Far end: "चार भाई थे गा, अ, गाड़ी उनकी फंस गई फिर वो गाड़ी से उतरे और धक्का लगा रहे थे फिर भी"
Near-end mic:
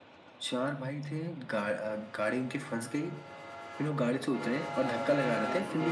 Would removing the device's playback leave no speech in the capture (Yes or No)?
No